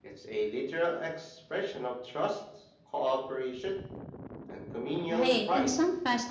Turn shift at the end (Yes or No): Yes